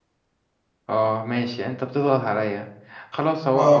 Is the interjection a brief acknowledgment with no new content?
Yes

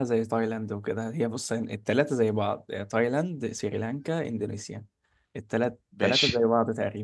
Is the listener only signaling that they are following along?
Yes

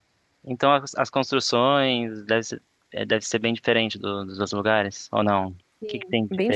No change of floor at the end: No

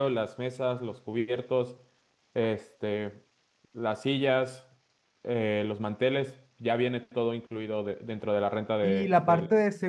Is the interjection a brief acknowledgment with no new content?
No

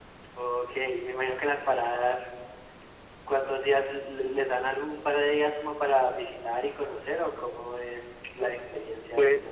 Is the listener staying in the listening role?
No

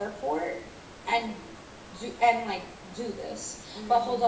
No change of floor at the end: Yes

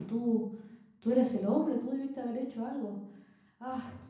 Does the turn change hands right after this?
No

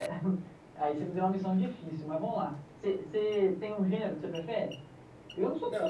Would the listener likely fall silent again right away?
No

